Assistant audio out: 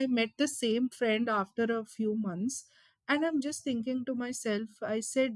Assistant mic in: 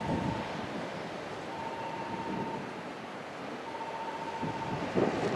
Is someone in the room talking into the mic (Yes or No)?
No